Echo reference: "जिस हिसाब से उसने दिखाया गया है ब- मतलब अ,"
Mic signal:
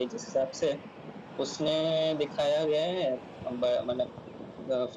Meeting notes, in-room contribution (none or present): none